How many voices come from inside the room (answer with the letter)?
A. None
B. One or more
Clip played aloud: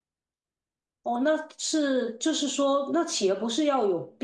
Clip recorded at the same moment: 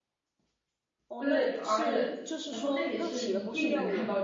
B